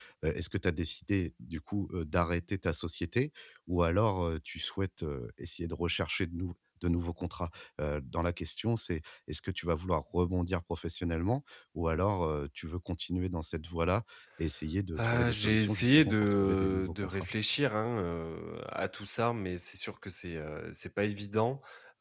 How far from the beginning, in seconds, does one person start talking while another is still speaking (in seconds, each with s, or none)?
15.0 s